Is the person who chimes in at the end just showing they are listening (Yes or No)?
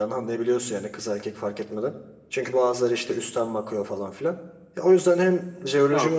Yes